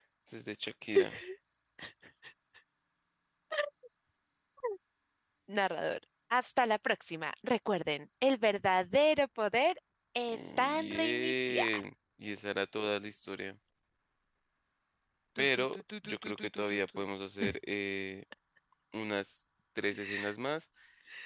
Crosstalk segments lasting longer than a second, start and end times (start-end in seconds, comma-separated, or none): 10.3-11.8, 15.4-17.0